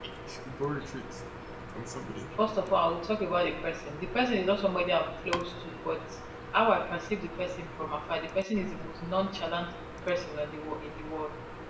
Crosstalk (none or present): none